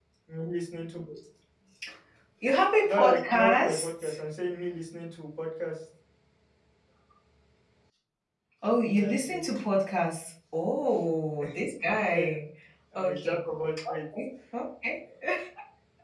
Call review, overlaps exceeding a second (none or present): present